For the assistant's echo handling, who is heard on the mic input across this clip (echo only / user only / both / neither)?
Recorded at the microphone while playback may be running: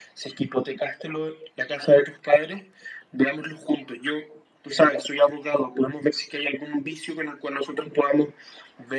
echo only